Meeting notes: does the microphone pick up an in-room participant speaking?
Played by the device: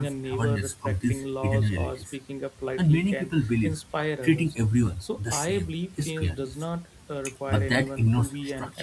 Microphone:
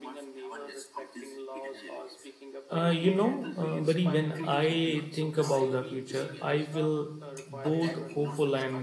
Yes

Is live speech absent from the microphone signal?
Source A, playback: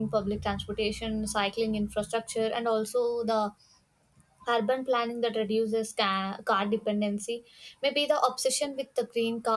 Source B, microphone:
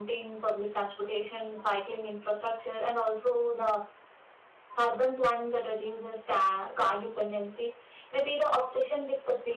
Yes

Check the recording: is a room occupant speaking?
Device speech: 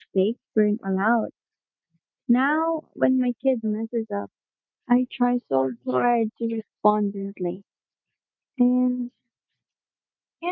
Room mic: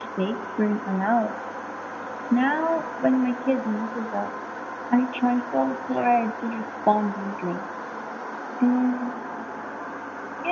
No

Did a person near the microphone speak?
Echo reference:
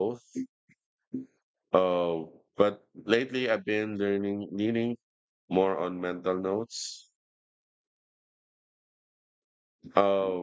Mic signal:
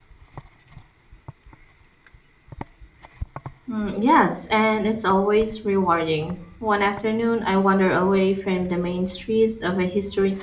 Yes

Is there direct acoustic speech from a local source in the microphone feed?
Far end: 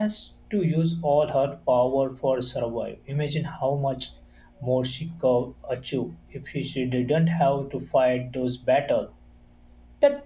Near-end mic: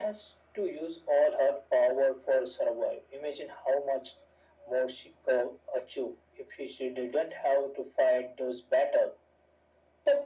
No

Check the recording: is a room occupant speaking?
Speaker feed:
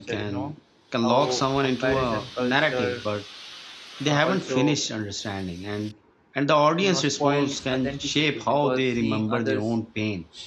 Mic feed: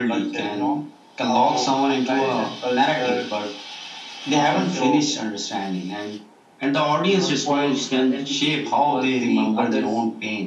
No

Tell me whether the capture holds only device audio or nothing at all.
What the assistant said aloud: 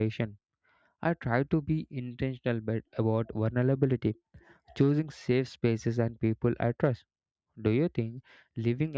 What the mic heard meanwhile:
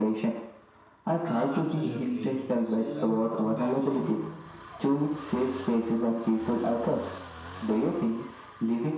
No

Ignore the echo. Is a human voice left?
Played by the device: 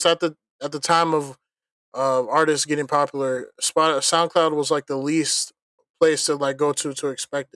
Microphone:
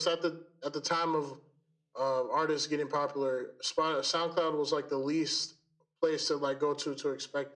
No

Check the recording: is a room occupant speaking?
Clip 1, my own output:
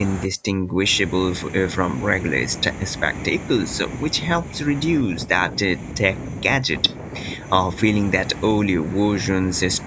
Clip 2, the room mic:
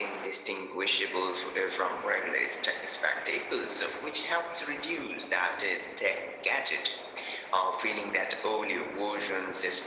No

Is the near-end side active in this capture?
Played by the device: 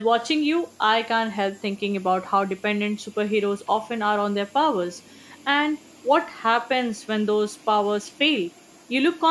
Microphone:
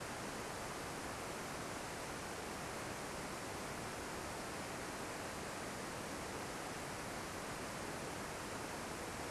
No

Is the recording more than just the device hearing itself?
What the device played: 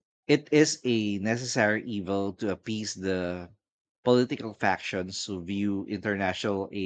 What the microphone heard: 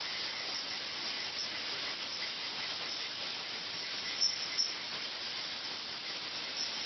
No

